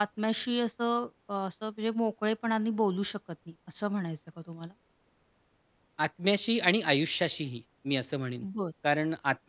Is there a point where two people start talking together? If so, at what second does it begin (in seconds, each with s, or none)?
none